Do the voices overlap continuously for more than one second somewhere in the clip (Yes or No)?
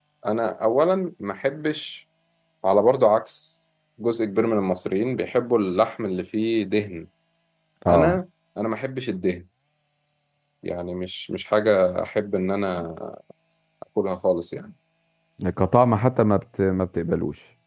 No